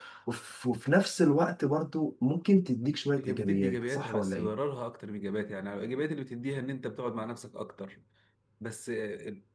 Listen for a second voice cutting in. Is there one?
Yes, from 3.2 s

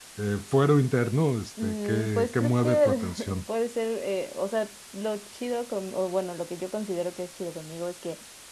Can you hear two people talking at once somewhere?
Yes, from 1.6 s

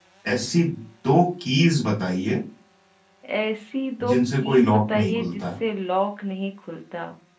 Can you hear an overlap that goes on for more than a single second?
Yes, from 4.1 s

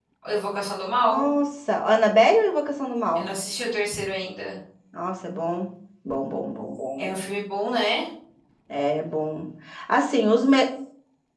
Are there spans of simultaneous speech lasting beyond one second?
No

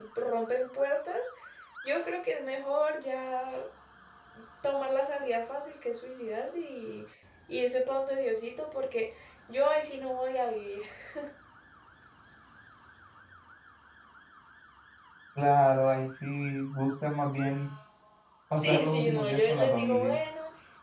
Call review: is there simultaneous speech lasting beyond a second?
Yes, from 18.5 s

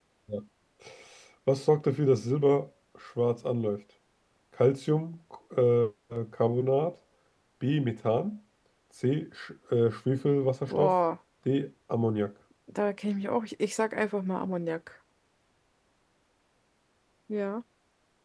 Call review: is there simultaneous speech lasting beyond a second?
No

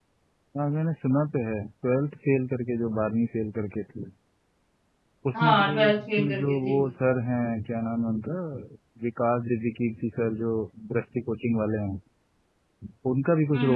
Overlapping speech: Yes, from 5.3 s

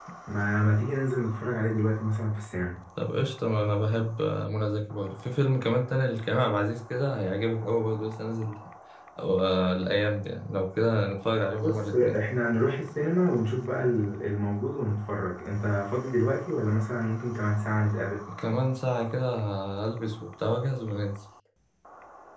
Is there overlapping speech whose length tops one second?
No

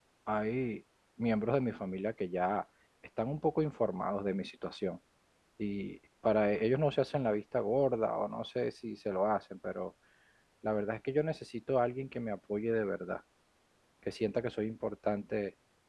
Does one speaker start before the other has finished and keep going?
No

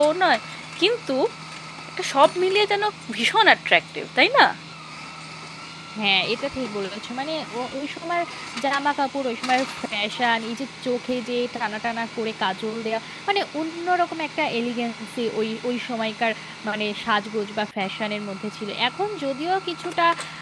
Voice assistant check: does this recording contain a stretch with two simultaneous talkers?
No

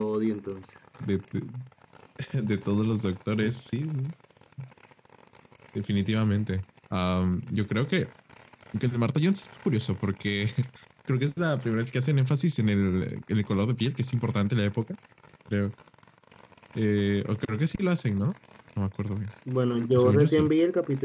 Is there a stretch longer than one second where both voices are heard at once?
No

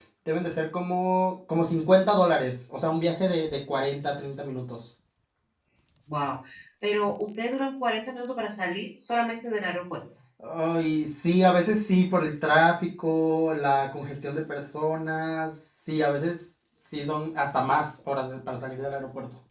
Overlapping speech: No

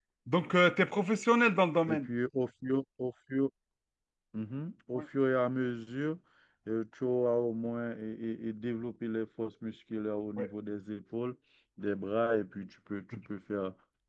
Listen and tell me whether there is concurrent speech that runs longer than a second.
No

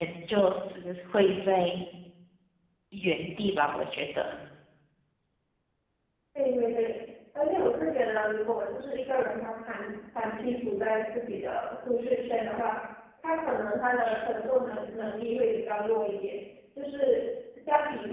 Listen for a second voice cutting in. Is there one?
No

